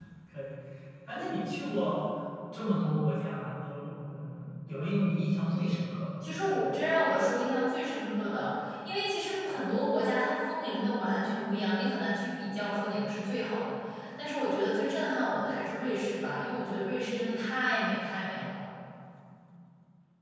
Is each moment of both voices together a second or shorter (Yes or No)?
Yes